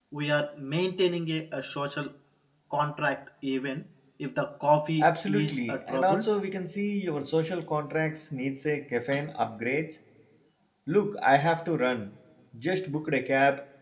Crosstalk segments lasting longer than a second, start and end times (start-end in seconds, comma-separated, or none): 5.0-6.3